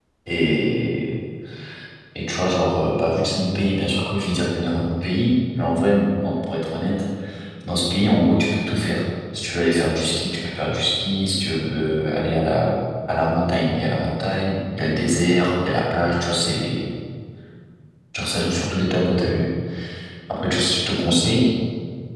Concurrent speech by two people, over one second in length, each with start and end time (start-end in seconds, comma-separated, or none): none